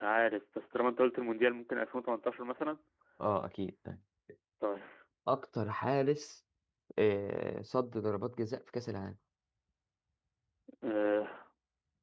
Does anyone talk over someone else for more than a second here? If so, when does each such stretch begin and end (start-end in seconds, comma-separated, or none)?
none